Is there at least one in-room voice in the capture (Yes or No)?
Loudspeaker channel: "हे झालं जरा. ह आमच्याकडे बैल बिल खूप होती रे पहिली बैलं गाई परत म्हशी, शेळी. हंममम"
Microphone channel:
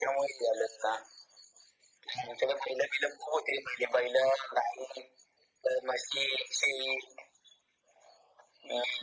No